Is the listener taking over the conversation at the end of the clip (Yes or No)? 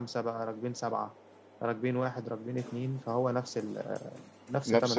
Yes